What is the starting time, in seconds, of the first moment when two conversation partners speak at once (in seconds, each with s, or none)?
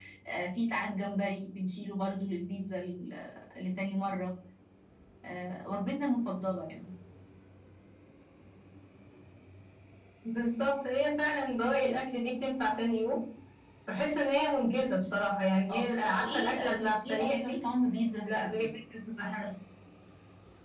15.7 s